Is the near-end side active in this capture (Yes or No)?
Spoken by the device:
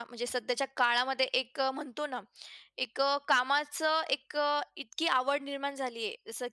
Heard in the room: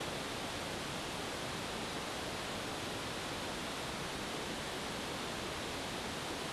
No